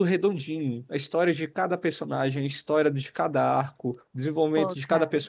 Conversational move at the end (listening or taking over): listening